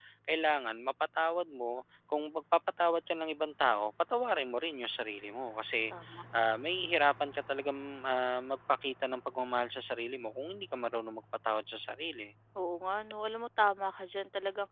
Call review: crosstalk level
none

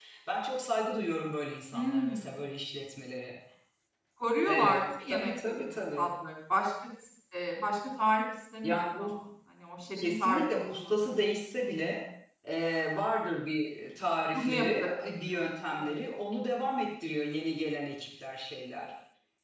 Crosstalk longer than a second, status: present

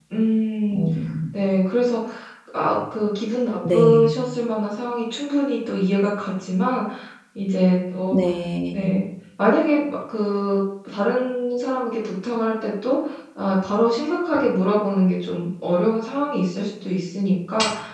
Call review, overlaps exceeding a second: none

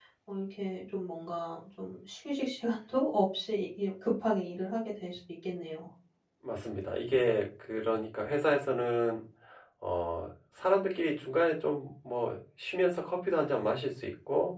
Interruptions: none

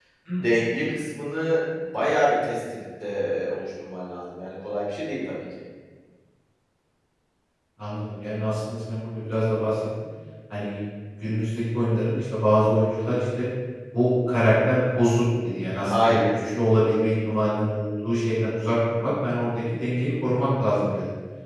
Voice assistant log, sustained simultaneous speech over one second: none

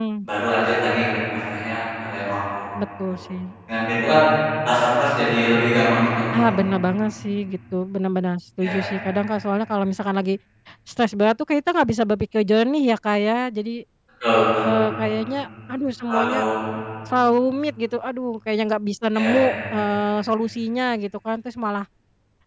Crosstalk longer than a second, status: none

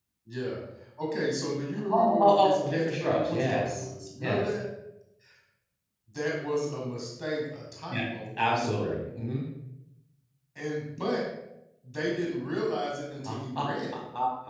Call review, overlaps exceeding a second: present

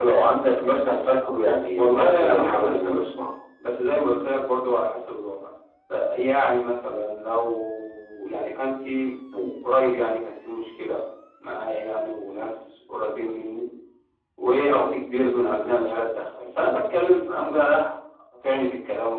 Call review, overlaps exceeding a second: present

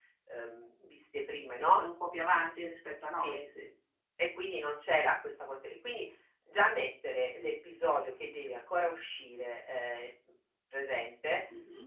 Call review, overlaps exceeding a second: none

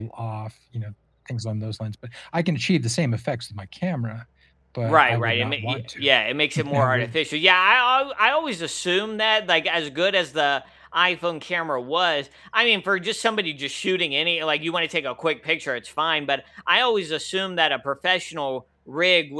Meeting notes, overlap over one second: present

